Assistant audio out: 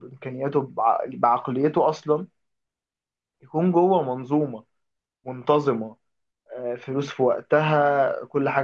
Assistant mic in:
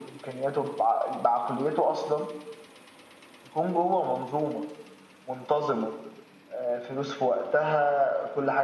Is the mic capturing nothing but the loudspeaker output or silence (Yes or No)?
Yes